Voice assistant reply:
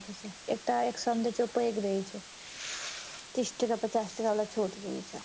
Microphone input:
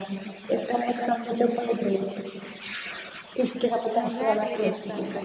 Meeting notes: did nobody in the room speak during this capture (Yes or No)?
No